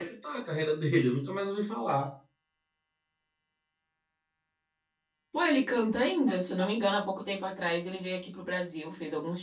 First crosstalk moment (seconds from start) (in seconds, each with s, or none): none